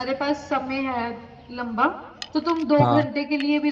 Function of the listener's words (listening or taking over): listening